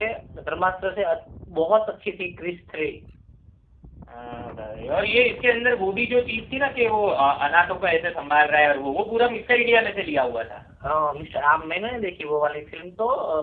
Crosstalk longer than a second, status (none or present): none